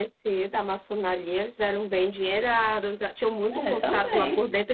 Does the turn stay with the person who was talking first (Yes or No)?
Yes